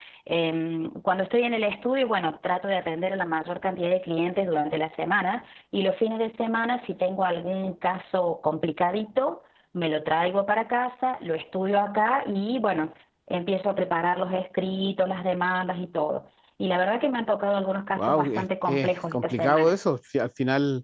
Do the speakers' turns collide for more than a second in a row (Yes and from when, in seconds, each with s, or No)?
Yes, from 18.0 s